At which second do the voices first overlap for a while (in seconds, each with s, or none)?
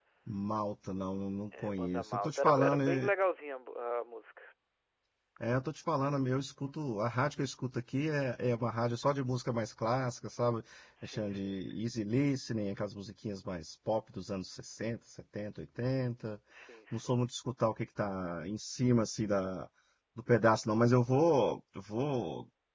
1.6 s